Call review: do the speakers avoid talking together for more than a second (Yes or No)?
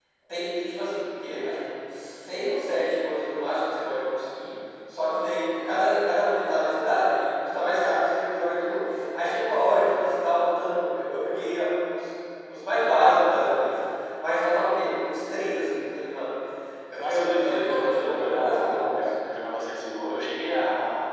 No